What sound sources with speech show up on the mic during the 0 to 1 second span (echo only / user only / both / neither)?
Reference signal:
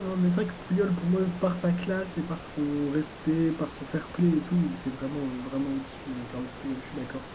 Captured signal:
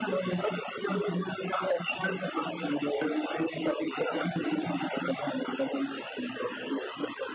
echo only